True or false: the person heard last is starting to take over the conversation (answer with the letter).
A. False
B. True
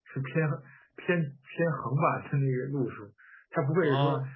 A